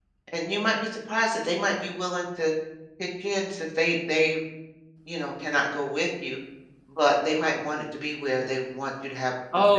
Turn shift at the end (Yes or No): Yes